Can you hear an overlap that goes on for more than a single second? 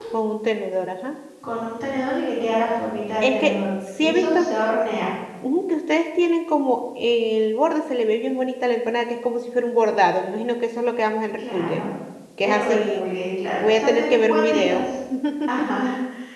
Yes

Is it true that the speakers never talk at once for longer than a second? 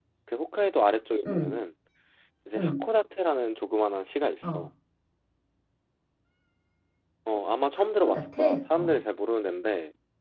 No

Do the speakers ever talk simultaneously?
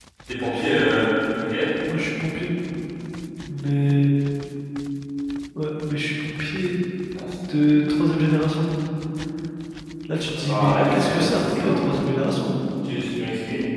Yes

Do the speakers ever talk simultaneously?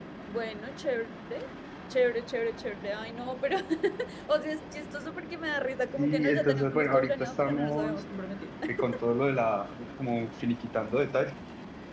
Yes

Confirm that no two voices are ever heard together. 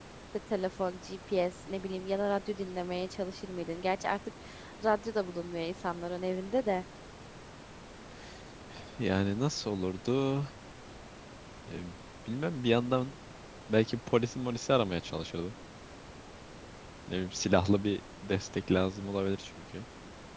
Yes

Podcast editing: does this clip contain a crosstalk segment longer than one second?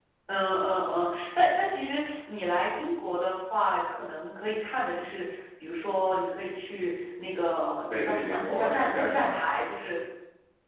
Yes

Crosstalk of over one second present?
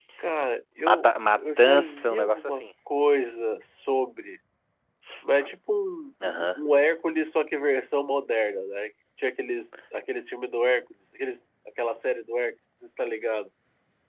Yes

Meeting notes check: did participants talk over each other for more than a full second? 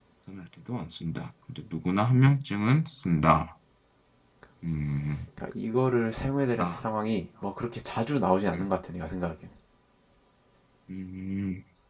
No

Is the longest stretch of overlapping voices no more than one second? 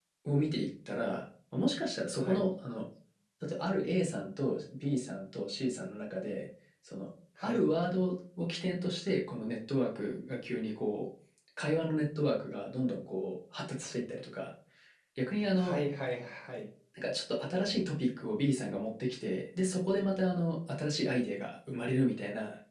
Yes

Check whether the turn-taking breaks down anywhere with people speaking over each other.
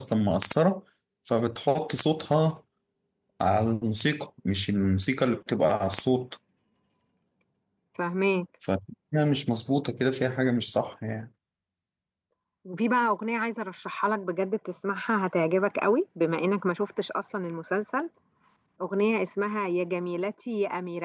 No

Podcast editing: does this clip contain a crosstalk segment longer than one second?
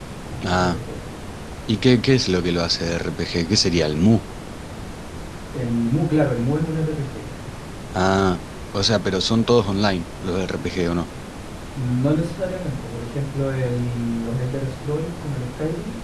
No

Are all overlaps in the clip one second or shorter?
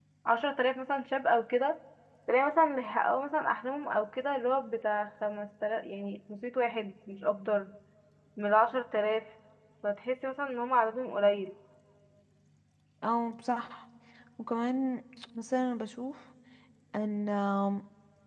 Yes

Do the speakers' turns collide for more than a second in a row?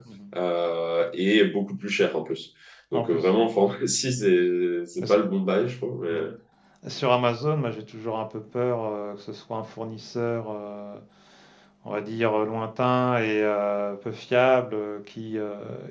No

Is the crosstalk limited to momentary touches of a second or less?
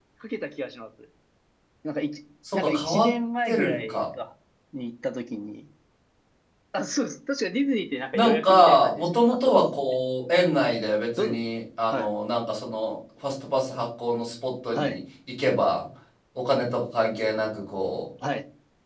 No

